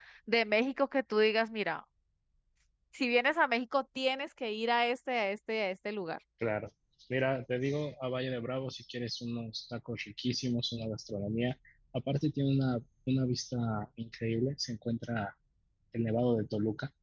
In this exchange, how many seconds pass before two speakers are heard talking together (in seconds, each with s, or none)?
none